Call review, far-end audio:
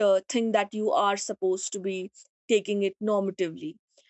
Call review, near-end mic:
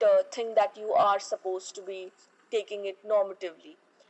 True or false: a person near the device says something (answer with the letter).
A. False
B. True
A